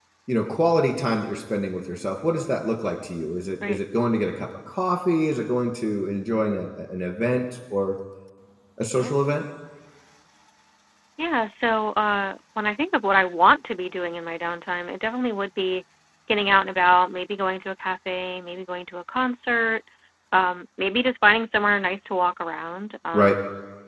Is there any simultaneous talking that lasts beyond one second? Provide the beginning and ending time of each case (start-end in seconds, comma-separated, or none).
none